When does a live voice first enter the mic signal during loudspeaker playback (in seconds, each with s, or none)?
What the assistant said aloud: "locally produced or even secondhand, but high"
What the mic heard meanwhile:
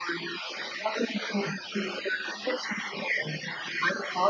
none